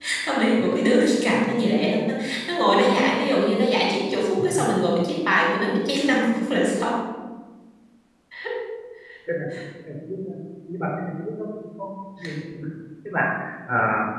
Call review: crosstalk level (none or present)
none